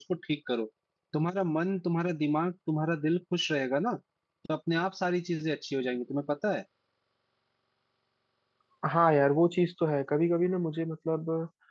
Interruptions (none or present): none